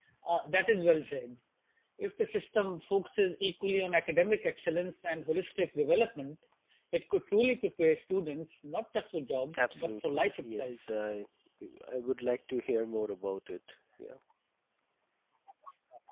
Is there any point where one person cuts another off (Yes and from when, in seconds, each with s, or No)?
Yes, from 9.5 s